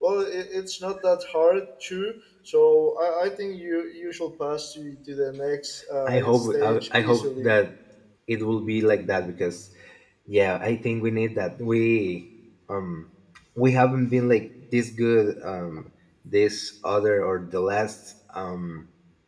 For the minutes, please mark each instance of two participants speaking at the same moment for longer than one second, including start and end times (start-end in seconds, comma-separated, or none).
6.1-7.5